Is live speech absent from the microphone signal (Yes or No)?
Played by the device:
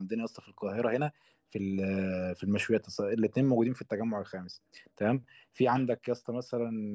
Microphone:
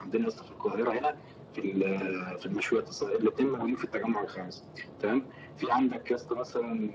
Yes